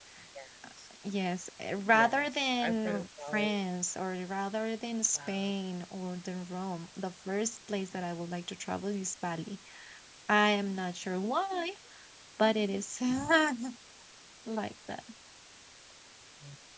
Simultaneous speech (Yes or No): Yes